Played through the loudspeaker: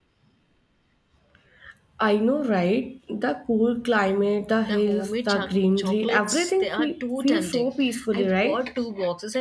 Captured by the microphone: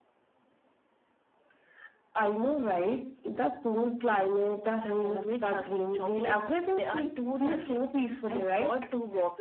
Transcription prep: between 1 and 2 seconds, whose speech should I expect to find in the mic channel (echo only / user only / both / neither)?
neither